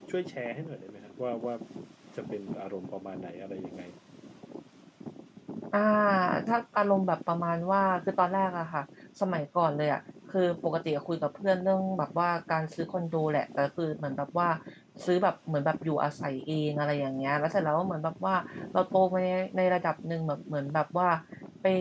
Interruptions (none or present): none